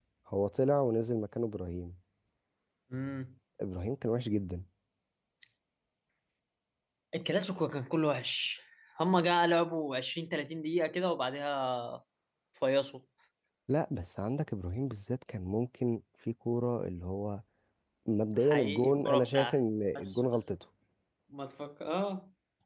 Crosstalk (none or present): present